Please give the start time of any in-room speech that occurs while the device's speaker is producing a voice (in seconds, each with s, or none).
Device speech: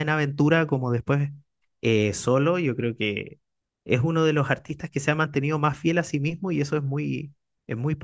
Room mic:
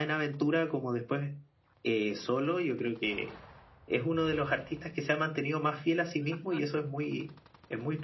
none